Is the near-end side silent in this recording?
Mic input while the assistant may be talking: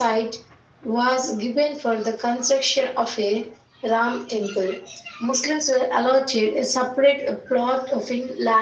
Yes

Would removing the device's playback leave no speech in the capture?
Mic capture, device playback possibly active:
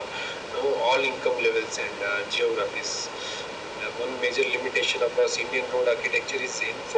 Yes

